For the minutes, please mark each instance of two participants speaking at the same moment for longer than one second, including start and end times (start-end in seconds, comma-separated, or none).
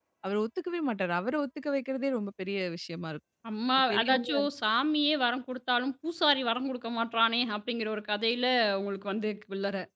none